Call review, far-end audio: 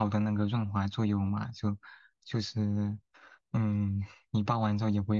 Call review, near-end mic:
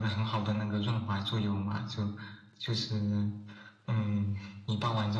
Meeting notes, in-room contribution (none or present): none